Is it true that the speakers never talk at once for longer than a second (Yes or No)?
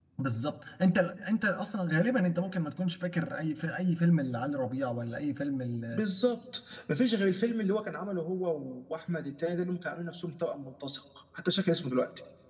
Yes